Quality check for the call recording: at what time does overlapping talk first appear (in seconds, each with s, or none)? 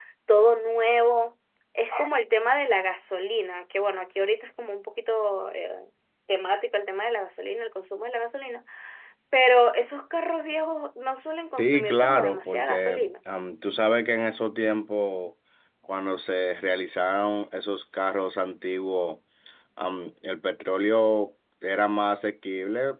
11.6 s